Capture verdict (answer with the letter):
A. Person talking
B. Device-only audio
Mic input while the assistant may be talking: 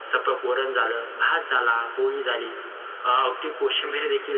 B